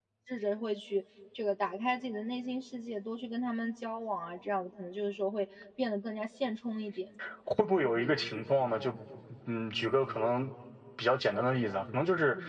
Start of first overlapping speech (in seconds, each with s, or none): none